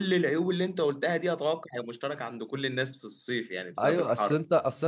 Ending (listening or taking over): taking over